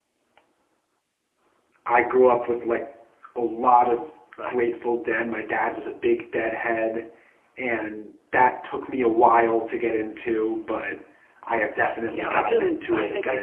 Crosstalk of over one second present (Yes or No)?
Yes